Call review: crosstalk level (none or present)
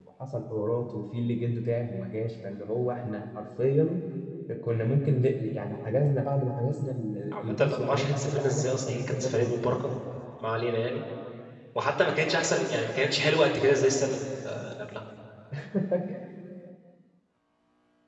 present